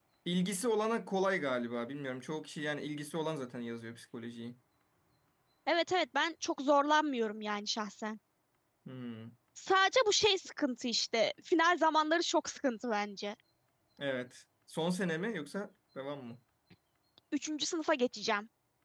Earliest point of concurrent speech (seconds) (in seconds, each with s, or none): none